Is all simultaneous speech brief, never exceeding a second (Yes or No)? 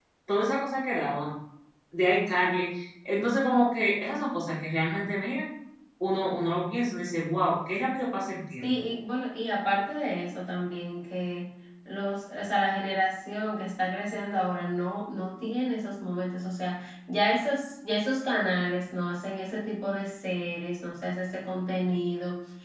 Yes